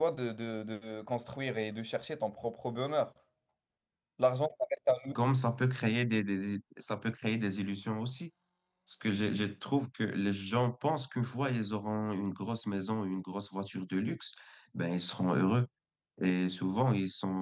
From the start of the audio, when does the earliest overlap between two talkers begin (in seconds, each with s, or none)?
none